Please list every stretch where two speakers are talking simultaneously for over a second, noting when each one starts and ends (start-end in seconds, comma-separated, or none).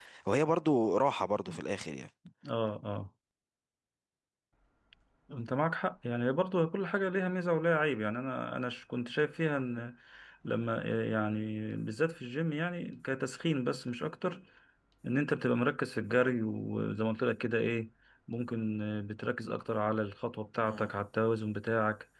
none